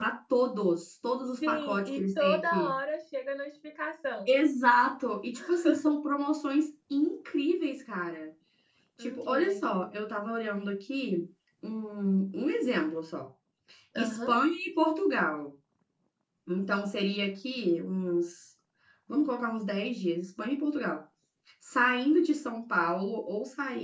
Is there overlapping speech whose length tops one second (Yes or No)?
Yes